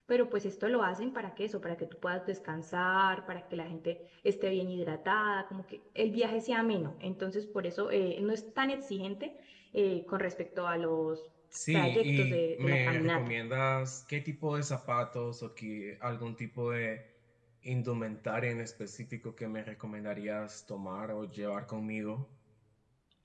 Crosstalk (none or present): present